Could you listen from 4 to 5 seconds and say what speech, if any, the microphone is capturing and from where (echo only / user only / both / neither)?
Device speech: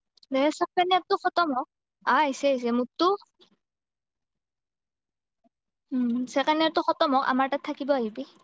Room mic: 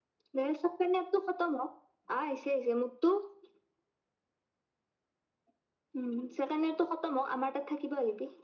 neither